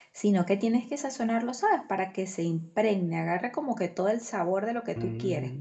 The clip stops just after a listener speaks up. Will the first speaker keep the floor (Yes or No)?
No